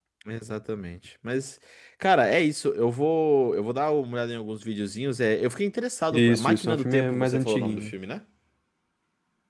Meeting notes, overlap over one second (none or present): present